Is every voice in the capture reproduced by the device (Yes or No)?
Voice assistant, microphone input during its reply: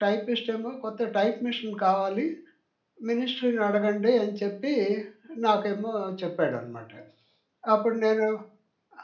No